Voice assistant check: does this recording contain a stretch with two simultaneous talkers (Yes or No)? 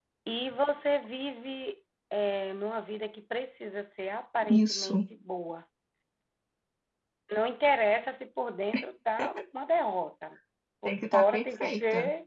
Yes